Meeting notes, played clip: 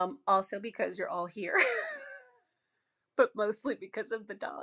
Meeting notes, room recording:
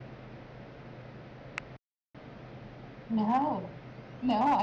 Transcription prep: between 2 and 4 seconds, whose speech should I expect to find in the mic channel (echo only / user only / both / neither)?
user only